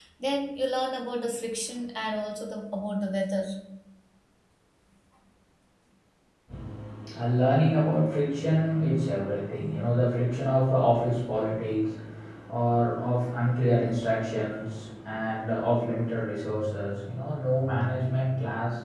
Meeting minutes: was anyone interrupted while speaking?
No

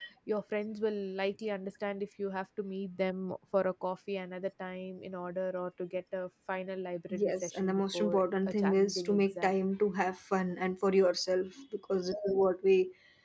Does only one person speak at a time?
No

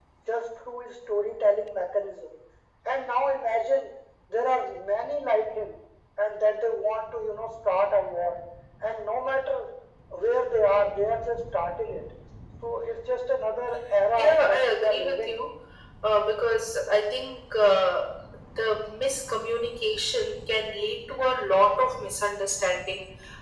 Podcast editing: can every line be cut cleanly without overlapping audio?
No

